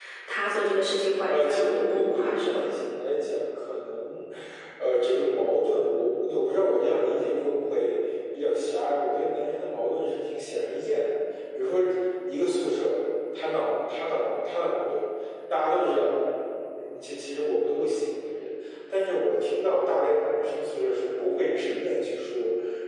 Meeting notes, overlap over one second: present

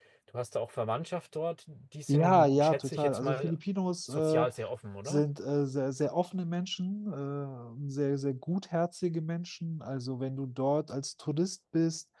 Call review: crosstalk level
present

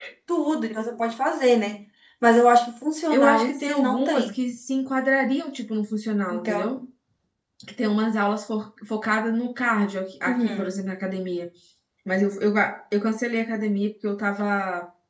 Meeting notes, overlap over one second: present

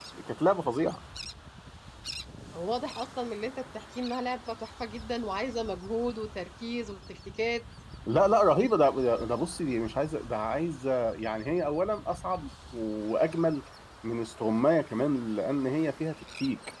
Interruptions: none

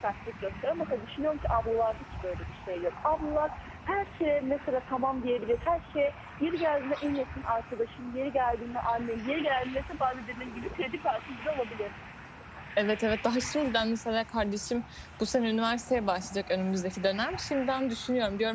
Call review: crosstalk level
none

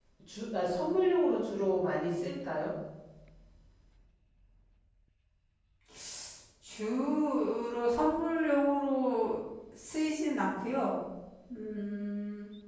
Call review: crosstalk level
none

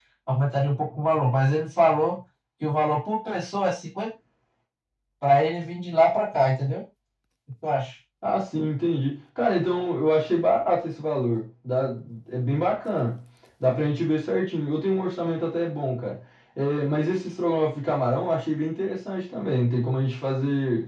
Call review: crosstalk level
none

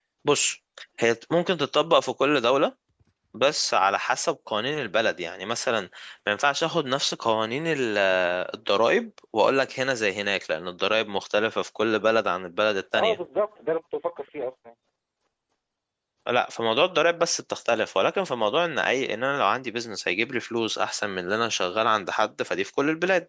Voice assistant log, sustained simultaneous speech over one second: none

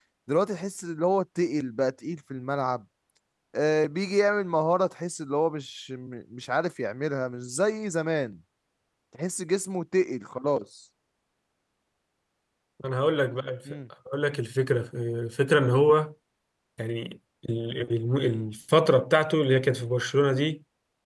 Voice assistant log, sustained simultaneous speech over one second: none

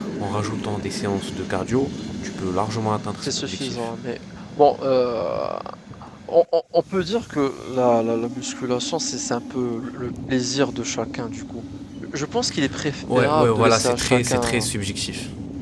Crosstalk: present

